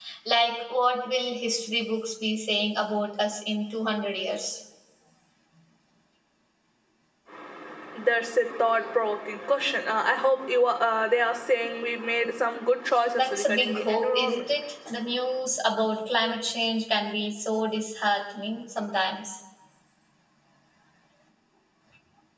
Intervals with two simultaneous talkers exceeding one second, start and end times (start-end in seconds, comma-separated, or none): 13.2-14.6